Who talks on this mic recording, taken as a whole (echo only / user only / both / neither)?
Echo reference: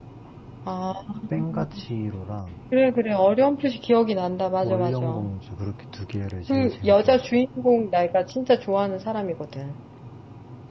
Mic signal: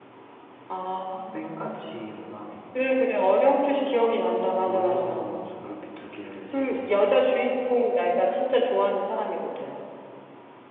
echo only